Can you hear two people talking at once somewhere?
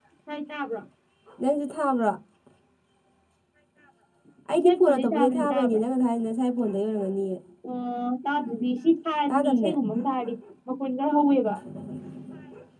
Yes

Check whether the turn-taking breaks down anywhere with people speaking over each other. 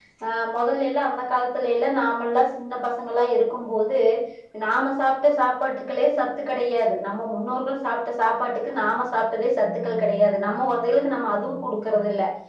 No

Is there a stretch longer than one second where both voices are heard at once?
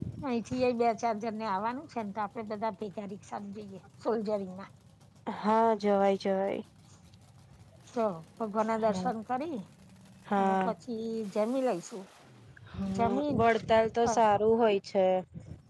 No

